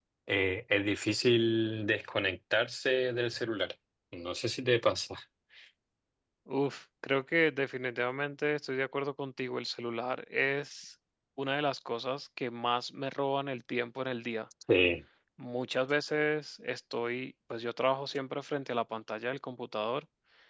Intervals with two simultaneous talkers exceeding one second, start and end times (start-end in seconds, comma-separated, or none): none